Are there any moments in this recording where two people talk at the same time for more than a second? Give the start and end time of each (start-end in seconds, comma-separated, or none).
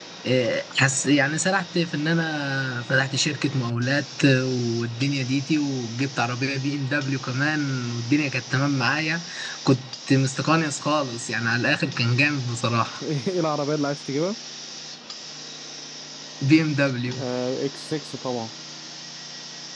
none